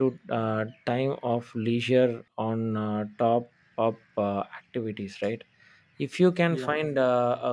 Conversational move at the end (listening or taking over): listening